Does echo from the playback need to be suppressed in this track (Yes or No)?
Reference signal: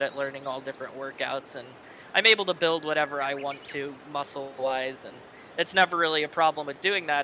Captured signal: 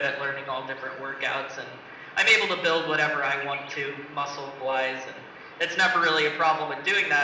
Yes